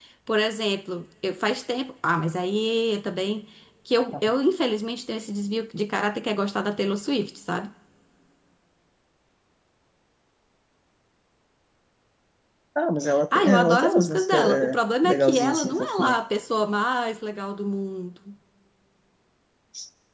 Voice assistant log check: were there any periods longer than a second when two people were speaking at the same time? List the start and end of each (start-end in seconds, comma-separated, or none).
13.4-16.2